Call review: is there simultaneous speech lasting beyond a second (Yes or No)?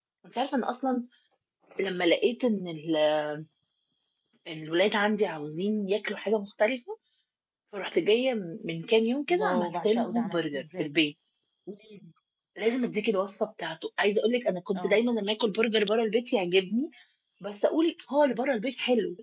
Yes